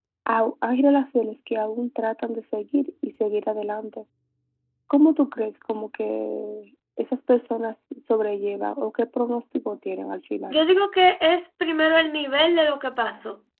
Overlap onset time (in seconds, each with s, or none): none